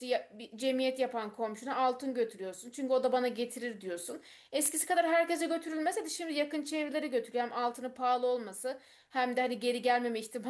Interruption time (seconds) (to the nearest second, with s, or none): none